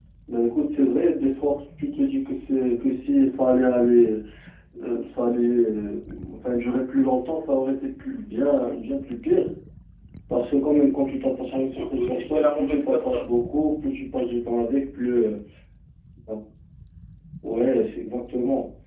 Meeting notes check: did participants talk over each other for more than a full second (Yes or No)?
Yes